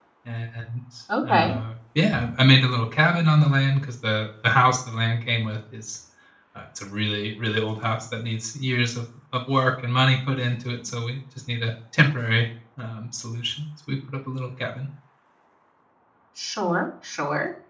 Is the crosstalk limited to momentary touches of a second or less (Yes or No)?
Yes